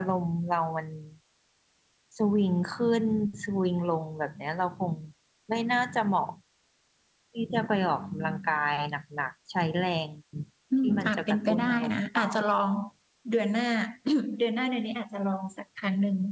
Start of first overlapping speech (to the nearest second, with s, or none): 11 s